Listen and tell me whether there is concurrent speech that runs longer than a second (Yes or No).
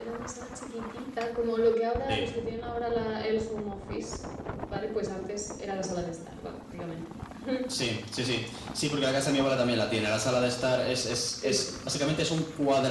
No